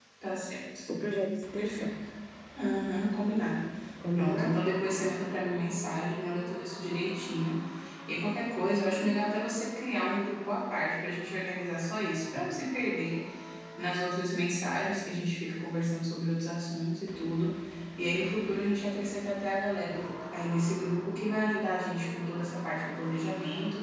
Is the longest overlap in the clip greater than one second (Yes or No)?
No